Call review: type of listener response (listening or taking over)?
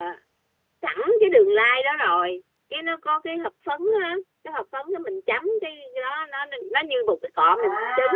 listening